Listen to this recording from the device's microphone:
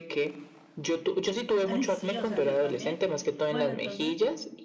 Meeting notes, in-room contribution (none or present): present